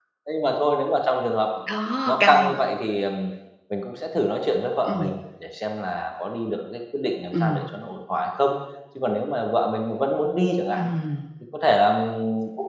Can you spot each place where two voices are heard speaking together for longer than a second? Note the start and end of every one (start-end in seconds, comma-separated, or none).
none